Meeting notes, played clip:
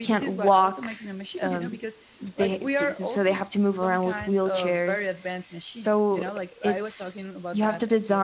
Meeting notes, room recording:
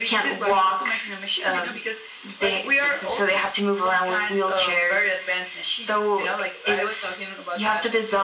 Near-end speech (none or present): none